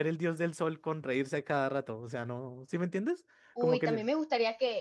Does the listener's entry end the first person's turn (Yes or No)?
Yes